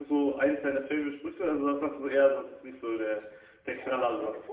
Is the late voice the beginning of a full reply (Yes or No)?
Yes